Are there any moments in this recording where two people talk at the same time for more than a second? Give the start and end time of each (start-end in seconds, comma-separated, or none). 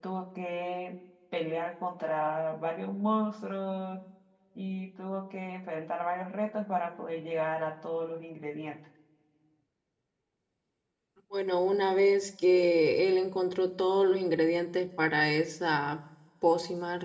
none